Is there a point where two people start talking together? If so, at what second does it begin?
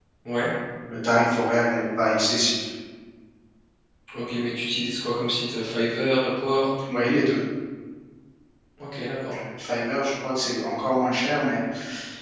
none

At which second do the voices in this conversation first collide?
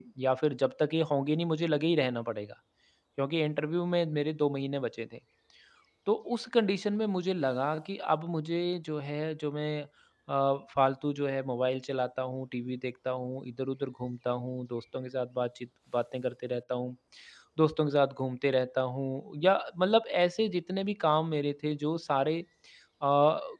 none

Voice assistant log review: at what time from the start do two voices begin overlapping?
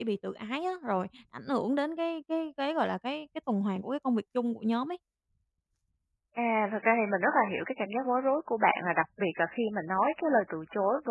none

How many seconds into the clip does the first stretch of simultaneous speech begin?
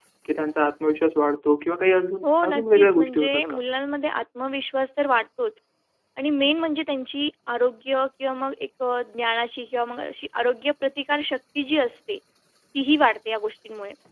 2.2 s

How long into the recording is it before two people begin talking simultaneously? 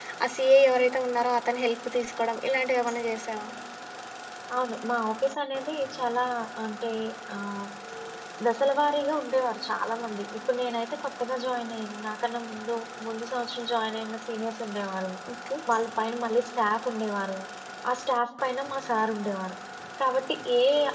none

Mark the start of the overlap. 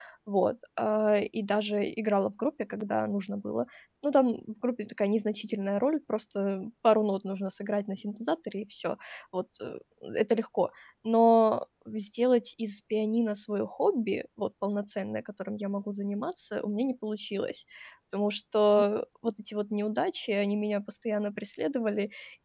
none

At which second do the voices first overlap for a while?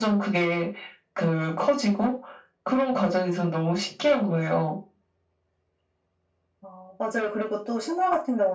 none

